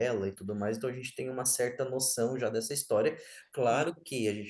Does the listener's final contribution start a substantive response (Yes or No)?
No